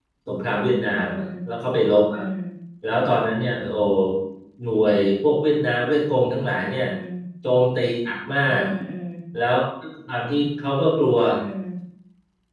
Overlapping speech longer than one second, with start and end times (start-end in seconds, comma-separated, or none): none